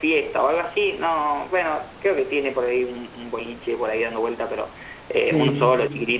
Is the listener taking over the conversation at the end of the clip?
No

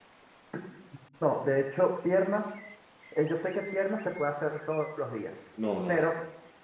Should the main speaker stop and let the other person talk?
Yes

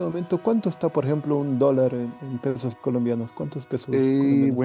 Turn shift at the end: Yes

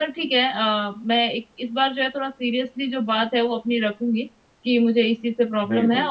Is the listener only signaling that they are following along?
Yes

